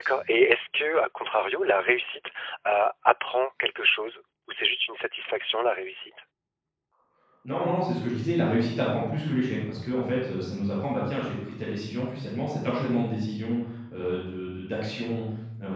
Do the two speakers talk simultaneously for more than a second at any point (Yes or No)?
No